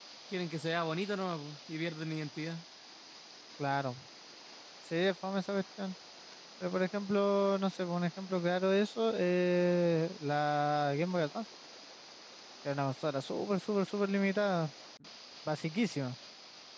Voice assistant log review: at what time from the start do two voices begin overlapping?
none

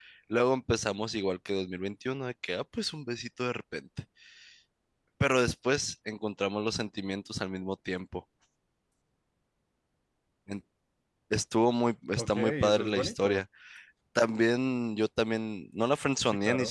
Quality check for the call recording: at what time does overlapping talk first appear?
12.2 s

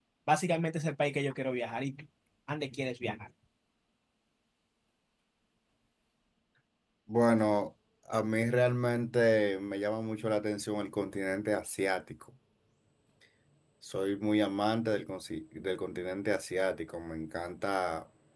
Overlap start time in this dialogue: none

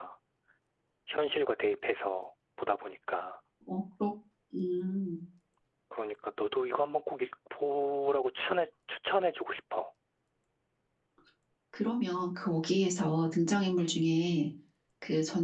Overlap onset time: none

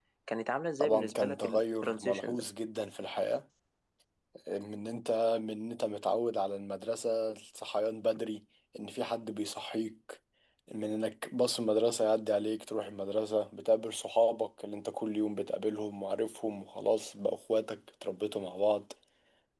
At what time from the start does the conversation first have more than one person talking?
0.8 s

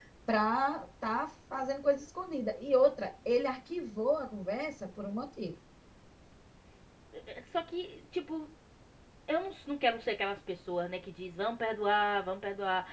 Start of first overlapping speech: none

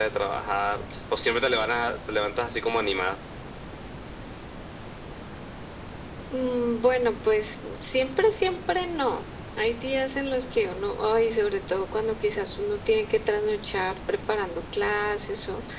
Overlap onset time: none

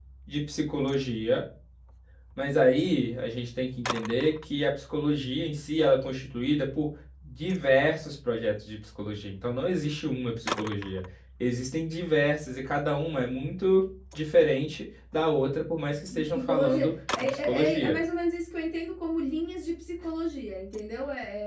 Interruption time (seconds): 16.3 s

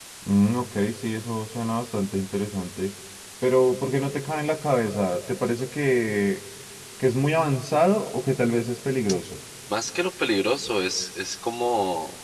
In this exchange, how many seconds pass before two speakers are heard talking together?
none

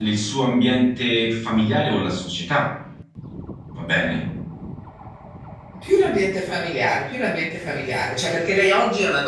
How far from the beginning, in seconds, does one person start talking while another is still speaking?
none

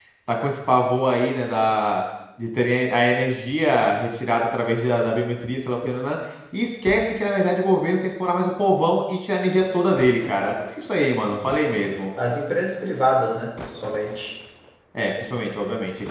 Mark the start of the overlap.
none

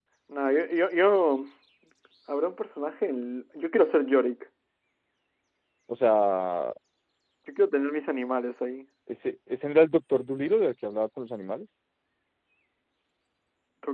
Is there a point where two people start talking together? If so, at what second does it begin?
none

